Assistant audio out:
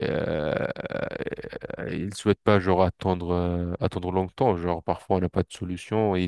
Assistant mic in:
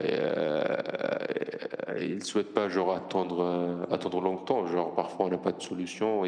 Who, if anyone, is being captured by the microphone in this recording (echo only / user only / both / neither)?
echo only